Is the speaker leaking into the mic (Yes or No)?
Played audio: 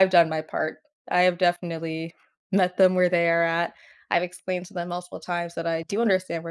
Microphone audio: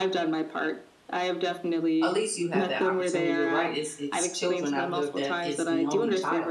Yes